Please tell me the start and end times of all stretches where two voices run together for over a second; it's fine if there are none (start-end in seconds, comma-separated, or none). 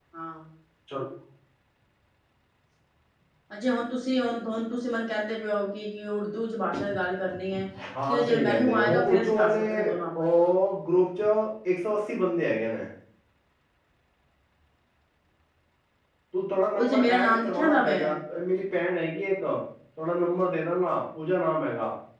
8.1-9.7, 16.7-18.1